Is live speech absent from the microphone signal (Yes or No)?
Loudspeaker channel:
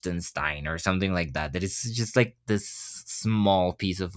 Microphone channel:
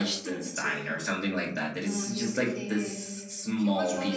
No